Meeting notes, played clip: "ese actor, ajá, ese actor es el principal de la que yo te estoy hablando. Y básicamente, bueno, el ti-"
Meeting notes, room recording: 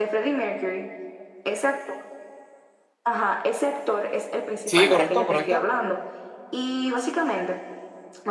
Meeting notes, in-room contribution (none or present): present